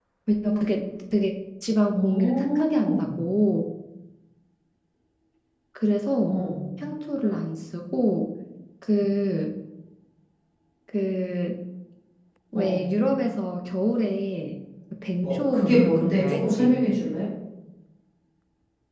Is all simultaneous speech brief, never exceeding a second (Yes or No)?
No